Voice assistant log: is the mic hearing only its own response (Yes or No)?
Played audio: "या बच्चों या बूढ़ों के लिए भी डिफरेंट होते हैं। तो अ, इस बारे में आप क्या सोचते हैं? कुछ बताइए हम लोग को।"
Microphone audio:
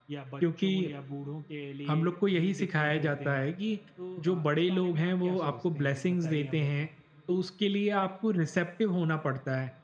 No